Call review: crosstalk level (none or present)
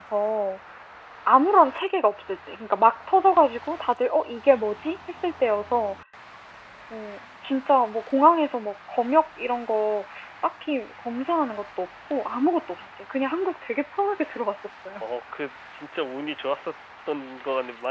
none